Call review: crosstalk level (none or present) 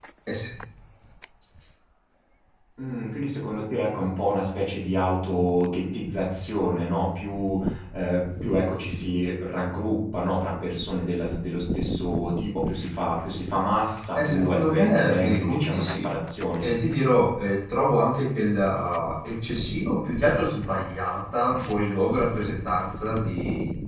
present